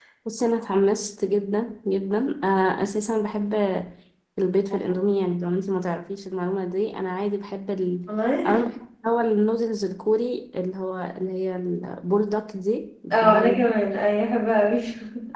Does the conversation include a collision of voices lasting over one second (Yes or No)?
No